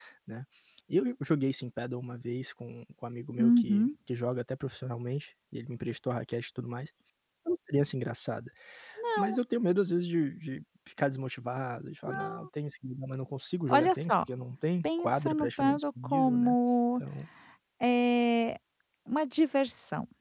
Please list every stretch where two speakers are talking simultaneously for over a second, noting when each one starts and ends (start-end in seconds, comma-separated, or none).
15.0-16.5